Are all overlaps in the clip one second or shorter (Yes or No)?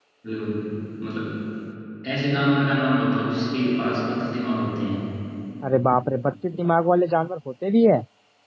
Yes